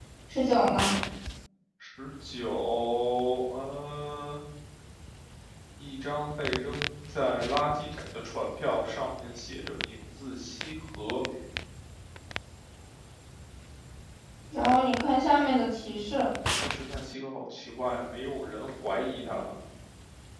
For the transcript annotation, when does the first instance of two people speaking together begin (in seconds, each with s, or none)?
none